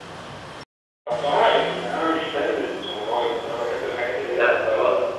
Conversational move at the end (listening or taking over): taking over